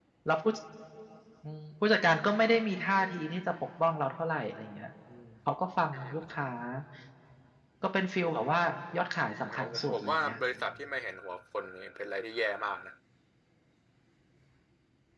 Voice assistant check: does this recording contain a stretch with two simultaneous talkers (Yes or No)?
Yes